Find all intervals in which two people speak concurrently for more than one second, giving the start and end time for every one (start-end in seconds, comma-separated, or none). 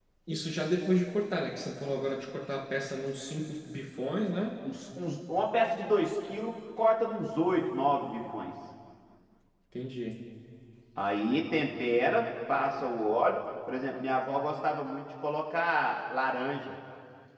none